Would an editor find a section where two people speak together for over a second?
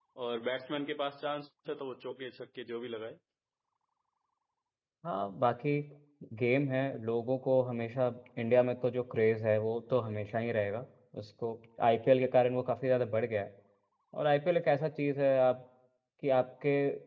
No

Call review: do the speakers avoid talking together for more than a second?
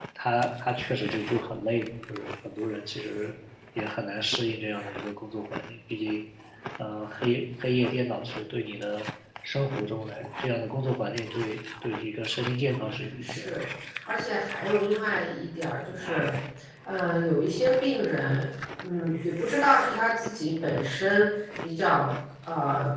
Yes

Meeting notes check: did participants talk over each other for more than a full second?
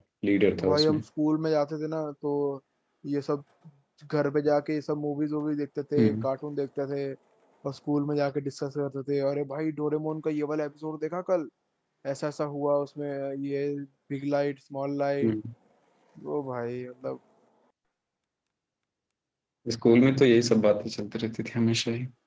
No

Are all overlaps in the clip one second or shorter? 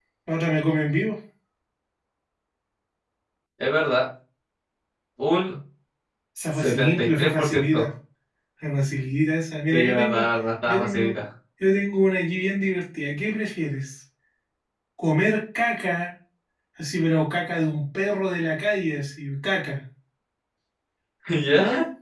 No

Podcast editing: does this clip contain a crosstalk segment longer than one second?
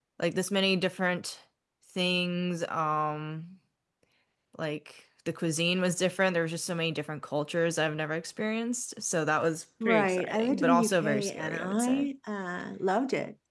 Yes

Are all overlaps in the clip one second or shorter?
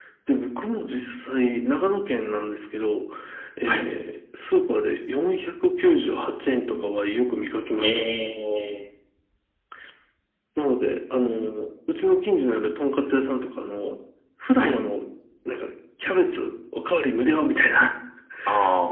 Yes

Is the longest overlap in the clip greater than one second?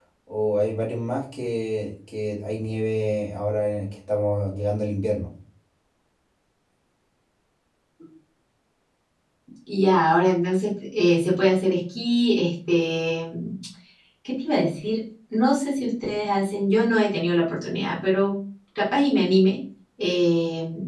No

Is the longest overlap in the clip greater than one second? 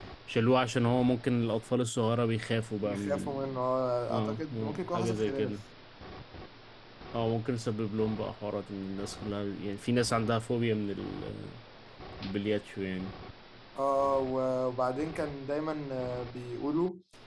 Yes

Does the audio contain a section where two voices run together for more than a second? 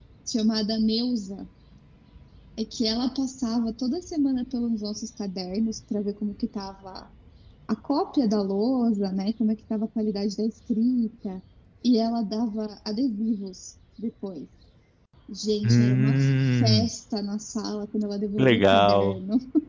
Yes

